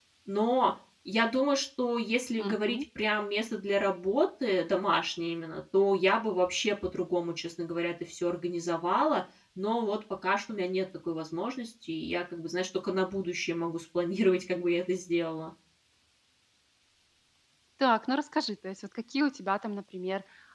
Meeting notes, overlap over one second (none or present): none